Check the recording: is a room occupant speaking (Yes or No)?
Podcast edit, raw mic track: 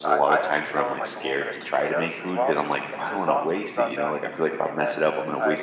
Yes